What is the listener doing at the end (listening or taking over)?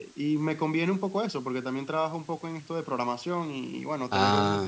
listening